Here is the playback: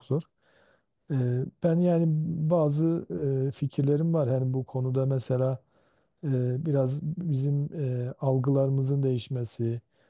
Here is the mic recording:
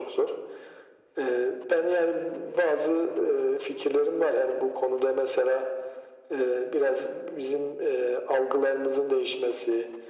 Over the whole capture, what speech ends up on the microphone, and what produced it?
echo only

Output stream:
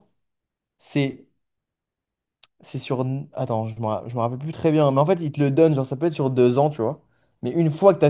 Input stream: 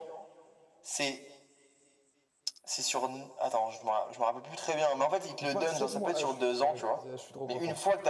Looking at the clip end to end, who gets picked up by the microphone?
both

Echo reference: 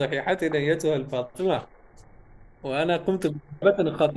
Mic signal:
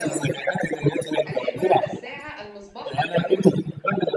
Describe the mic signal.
both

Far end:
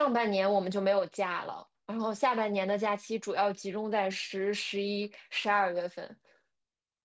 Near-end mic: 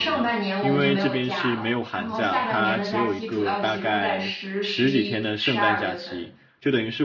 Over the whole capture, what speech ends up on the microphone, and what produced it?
both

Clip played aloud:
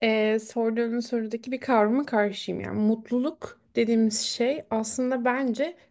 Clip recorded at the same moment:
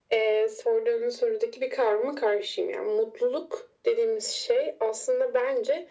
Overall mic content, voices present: echo only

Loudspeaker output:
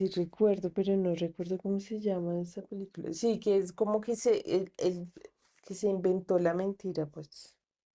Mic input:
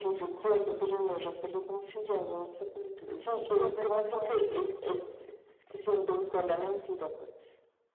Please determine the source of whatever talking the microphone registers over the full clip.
both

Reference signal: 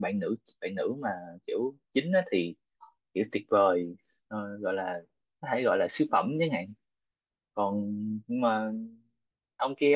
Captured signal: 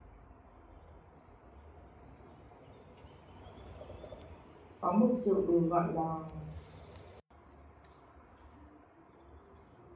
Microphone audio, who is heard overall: user only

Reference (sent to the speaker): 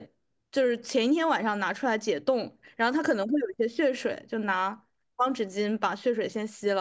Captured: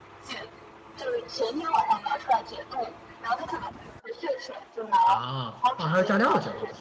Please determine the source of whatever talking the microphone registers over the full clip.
both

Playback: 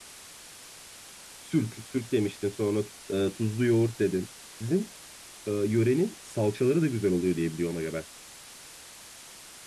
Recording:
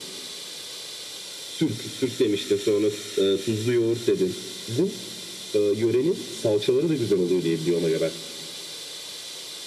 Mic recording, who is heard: echo only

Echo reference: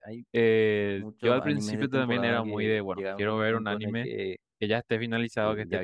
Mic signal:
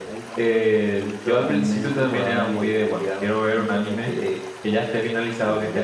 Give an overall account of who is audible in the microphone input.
echo only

